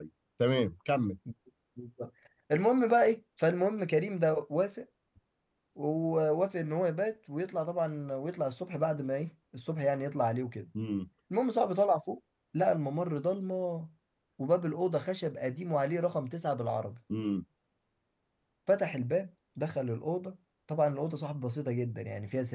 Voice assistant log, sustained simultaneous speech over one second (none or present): none